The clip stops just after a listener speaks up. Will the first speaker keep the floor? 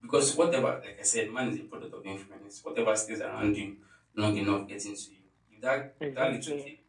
Yes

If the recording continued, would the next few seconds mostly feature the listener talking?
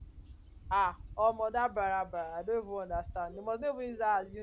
No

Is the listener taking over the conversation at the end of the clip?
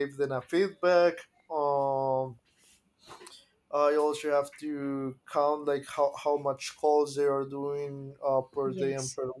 No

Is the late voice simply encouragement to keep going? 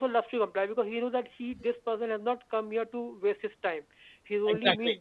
Yes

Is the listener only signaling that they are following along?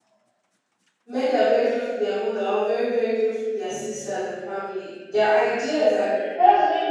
No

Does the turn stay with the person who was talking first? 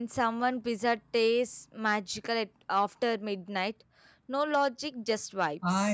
No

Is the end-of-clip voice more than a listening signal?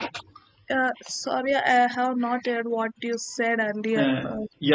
Yes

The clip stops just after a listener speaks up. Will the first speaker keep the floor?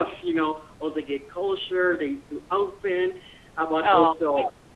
Yes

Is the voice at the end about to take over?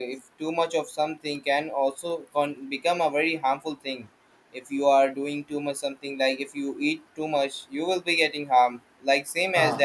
No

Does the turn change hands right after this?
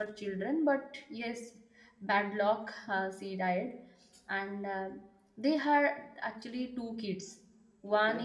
No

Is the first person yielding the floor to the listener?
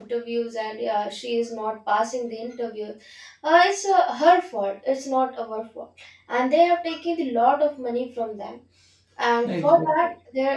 No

